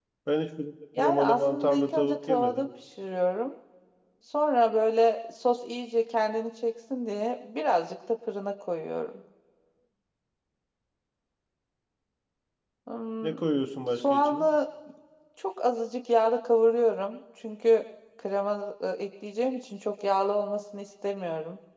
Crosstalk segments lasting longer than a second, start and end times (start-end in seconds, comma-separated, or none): 1.0-2.7